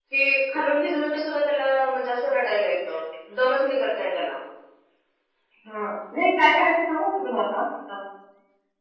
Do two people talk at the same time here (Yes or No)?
No